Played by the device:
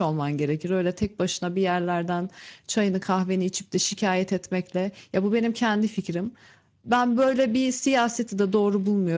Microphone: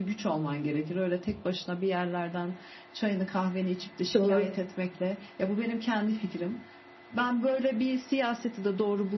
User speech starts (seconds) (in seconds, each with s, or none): 4.1 s